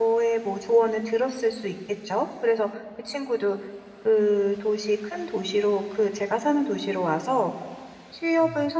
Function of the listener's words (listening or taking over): listening